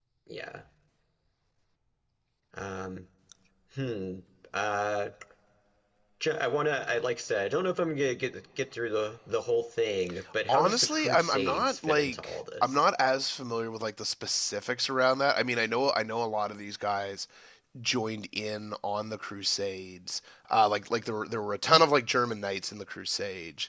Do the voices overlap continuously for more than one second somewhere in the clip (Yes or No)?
Yes